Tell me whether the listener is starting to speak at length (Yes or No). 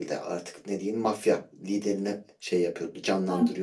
Yes